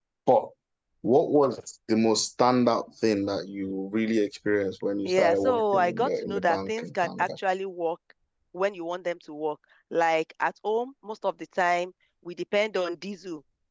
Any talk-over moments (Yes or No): Yes